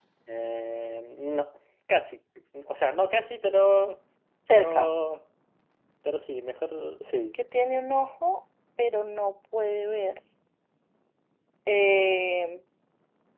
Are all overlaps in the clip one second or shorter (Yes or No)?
Yes